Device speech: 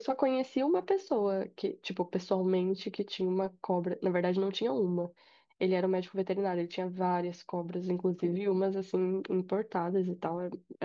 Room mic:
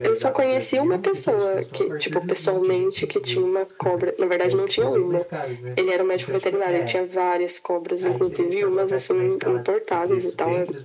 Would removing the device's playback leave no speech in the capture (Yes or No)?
No